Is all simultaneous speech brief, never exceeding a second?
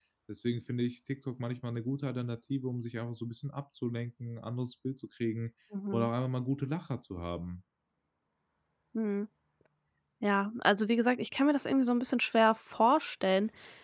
Yes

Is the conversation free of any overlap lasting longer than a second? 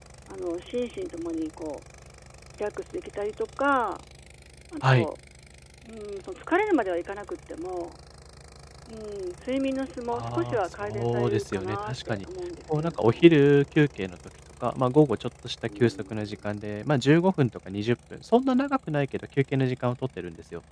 No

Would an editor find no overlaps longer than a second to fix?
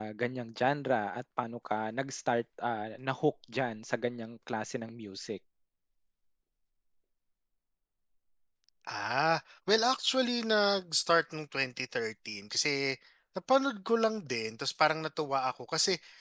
Yes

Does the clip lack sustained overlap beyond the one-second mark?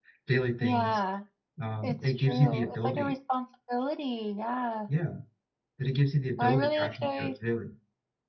No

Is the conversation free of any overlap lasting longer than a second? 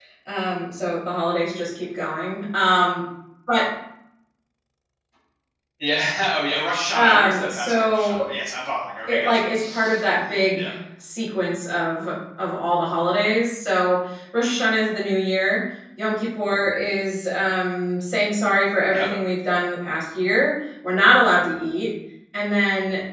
No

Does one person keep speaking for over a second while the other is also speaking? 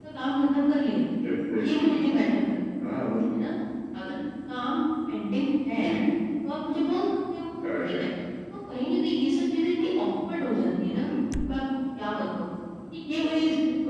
No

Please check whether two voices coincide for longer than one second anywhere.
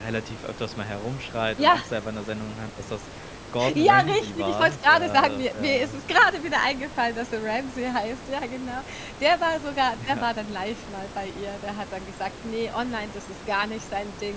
Yes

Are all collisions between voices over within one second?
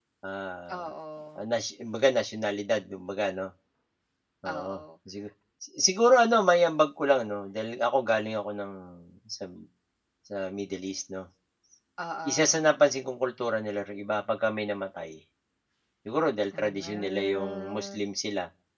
No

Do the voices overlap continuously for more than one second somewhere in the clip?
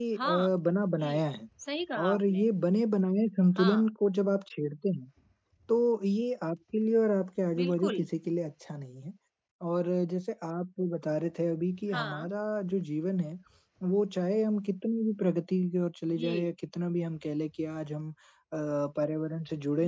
No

